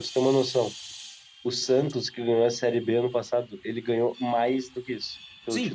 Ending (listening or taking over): taking over